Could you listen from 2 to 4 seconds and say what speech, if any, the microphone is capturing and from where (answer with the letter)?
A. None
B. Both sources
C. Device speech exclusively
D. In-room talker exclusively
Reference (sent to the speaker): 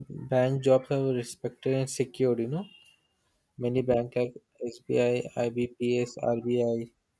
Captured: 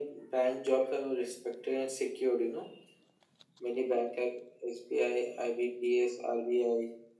C